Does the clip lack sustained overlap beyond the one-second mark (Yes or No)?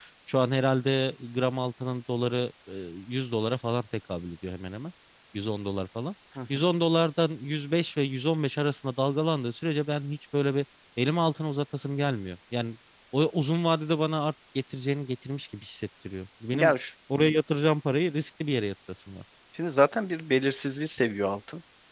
Yes